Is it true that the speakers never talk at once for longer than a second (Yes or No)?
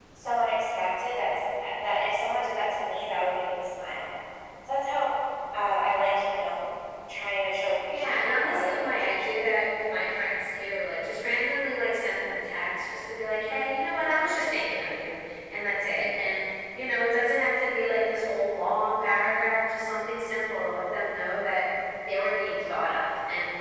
No